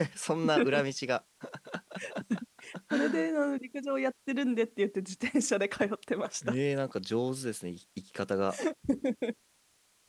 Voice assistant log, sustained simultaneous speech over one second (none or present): none